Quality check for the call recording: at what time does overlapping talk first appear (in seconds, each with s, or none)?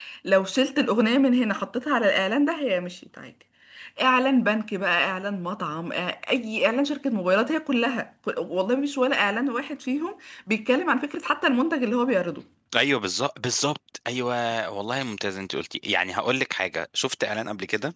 none